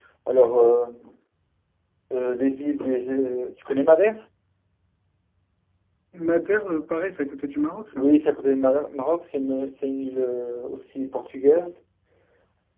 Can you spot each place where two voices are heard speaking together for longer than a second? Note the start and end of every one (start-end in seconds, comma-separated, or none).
none